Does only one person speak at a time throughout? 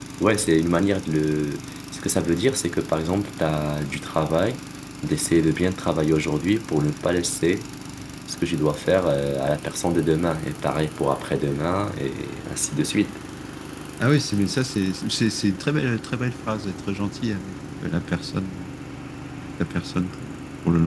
Yes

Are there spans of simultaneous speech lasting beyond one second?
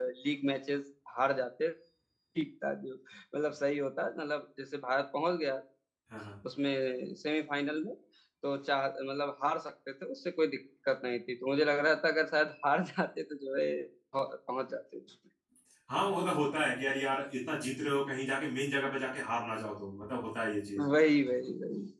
No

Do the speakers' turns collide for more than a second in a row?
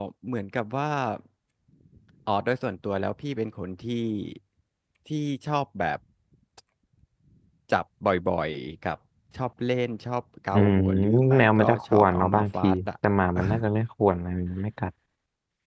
Yes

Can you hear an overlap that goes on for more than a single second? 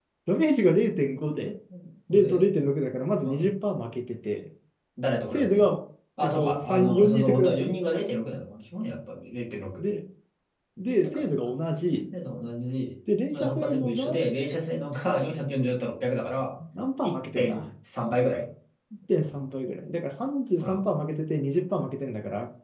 Yes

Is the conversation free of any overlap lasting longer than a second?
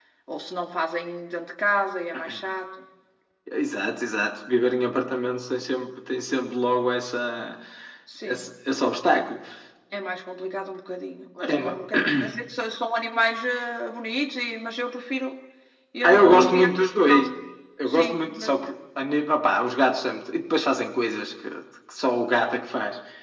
No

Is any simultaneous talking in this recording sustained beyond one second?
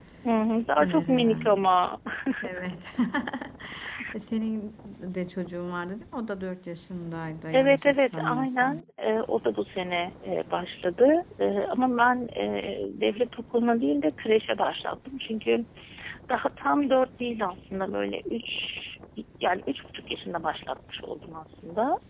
Yes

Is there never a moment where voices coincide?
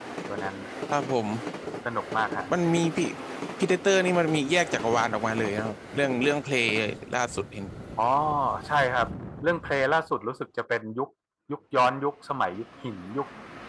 Yes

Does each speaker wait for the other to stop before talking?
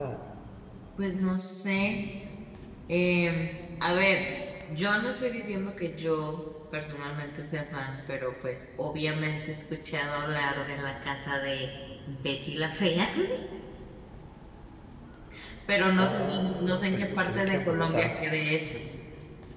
No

